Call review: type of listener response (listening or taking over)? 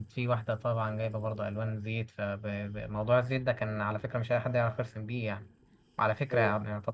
listening